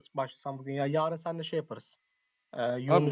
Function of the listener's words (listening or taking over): taking over